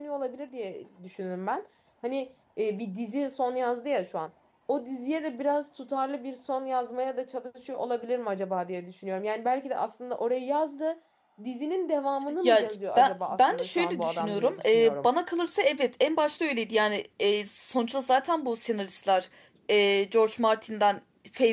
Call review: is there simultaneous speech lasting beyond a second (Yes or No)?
Yes